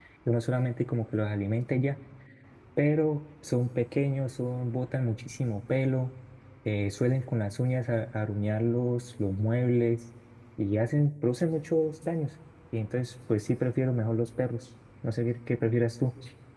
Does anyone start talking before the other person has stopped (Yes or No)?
No